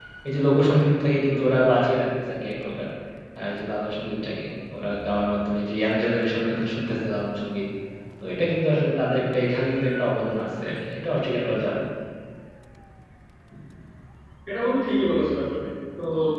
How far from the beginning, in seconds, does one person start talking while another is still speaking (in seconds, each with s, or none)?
none